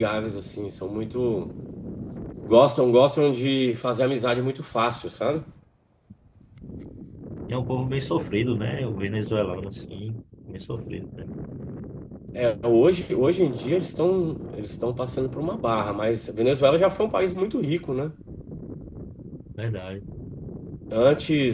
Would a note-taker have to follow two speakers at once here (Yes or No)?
No